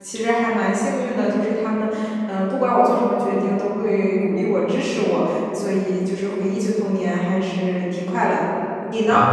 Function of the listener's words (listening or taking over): taking over